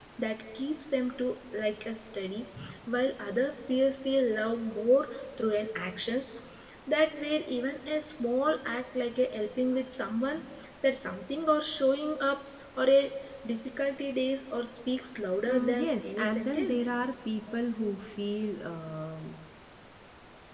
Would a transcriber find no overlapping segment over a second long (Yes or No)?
No